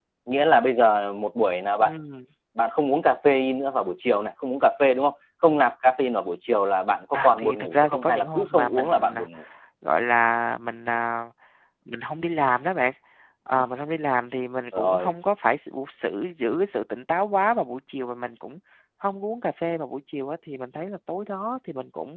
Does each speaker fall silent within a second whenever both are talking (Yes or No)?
No